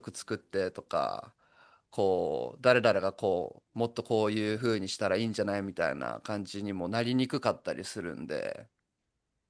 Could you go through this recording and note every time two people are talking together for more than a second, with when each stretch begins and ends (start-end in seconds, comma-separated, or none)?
none